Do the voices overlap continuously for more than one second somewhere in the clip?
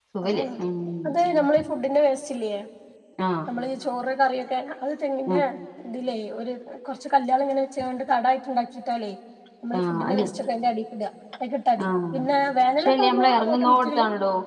Yes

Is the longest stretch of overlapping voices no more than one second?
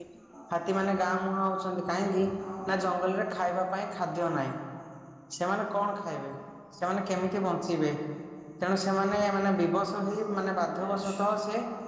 No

